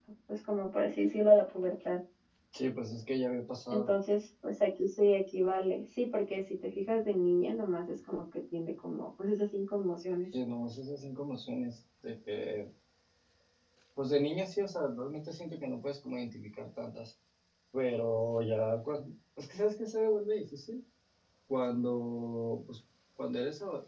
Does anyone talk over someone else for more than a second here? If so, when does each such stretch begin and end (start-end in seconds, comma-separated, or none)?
none